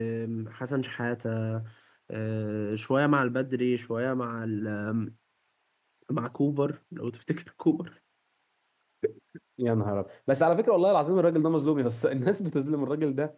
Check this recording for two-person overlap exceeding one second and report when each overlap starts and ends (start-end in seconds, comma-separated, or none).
none